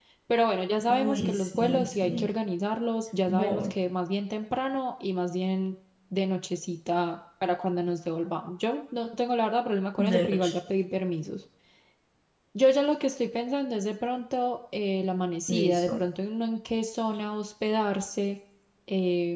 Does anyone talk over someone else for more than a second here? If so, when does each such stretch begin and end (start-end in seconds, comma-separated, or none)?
0.9-2.3